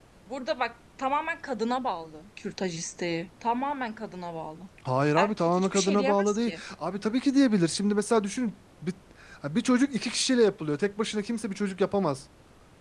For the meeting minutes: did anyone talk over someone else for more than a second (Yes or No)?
Yes